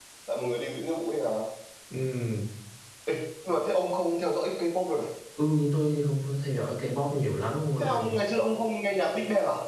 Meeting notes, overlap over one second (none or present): none